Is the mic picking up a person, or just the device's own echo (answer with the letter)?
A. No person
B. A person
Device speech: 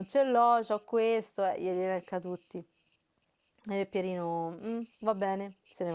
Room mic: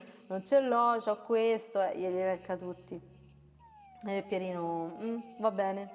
A